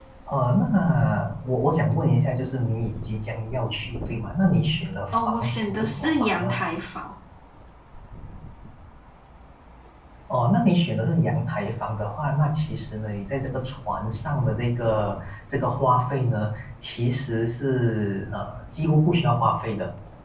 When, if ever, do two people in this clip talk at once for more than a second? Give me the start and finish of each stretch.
5.1-6.5

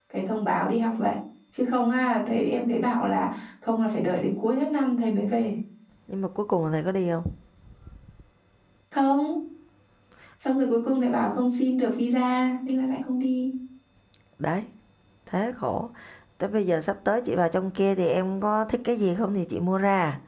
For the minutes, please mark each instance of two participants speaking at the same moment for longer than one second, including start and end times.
none

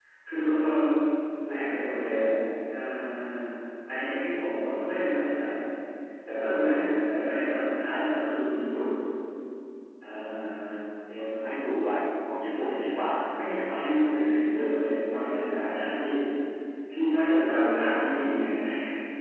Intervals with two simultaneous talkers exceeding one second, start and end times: 12.5-13.8

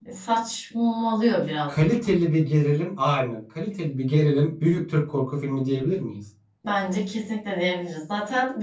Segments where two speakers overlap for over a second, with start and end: none

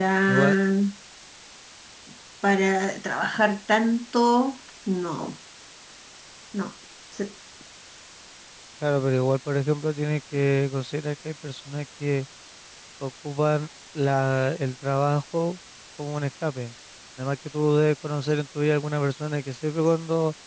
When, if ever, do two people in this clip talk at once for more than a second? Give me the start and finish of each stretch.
none

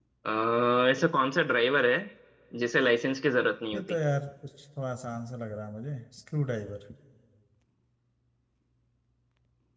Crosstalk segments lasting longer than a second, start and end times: none

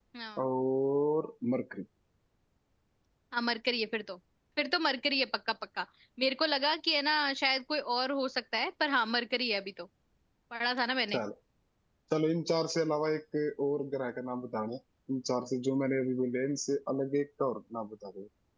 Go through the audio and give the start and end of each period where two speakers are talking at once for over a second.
none

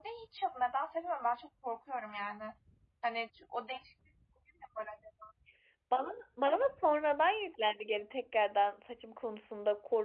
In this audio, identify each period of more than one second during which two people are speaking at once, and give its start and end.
none

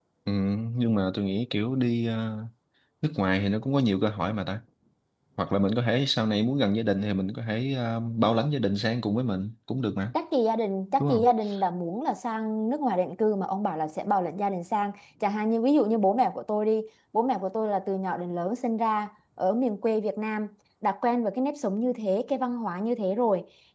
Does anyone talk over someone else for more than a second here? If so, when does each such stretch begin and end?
none

